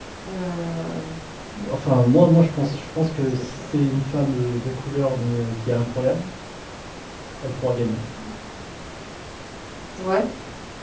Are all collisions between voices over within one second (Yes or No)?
Yes